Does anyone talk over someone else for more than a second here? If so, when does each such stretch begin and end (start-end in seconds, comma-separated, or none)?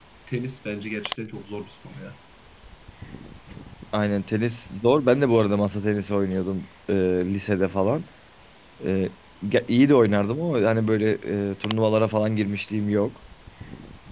none